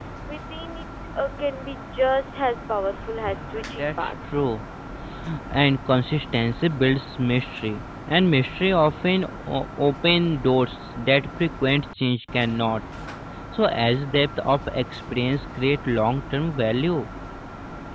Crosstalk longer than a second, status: present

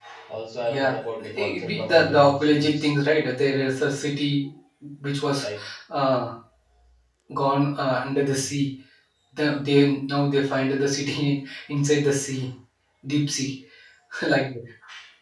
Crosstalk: present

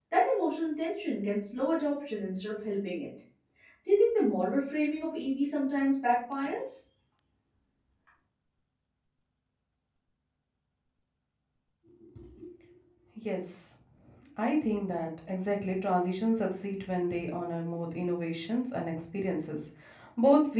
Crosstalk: none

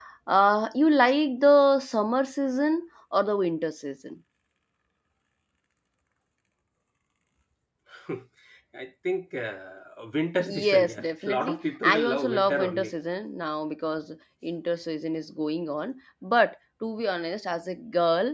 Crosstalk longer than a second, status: present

